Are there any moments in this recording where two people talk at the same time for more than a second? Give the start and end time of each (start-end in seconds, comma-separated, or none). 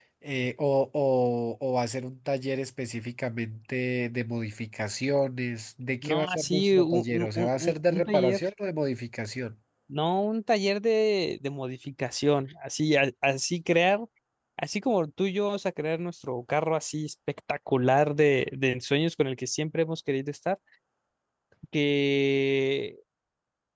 6.0-8.4